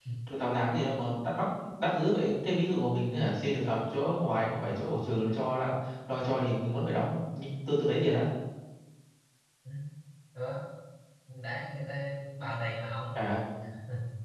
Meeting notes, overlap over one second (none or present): none